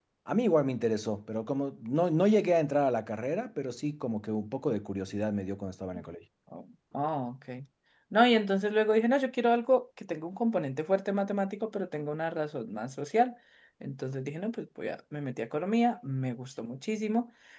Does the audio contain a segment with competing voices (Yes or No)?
No